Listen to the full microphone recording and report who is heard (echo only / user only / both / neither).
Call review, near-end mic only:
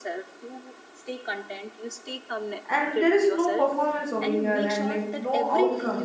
both